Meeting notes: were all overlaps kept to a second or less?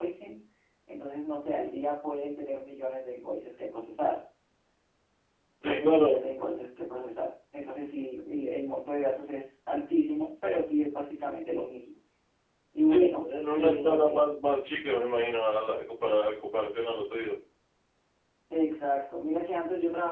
No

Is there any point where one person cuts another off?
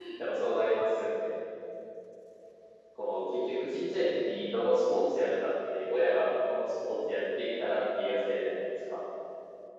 No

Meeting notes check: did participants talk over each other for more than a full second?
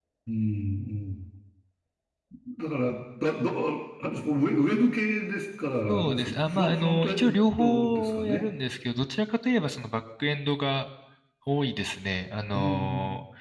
Yes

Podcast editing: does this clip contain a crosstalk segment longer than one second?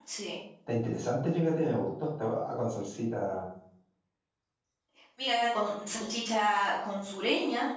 No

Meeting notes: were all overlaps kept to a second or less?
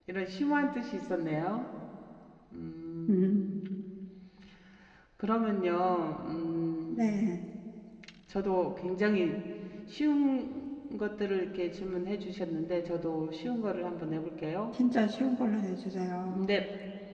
Yes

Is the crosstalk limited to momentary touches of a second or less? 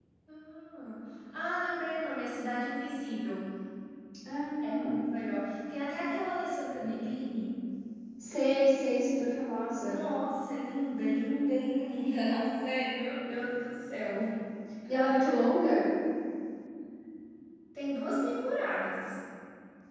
Yes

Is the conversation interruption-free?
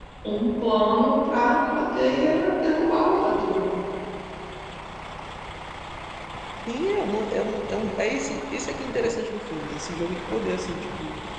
Yes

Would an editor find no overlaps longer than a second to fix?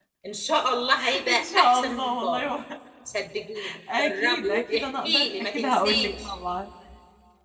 No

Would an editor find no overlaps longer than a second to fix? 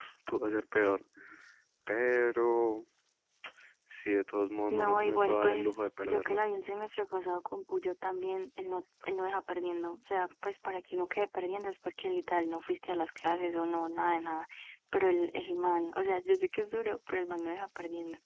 No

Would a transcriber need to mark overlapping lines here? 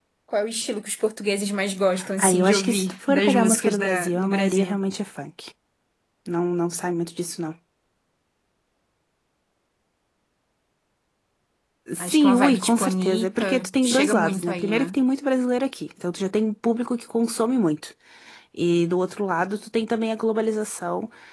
Yes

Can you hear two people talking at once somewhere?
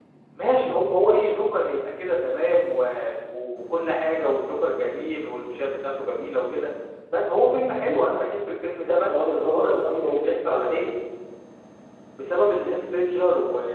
Yes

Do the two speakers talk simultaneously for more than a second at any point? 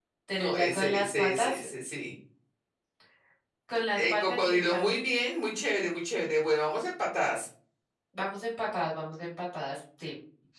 Yes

